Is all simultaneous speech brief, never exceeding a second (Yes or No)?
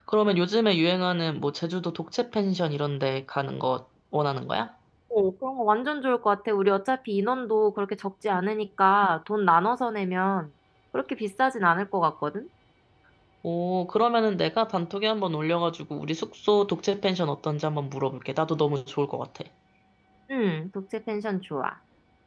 Yes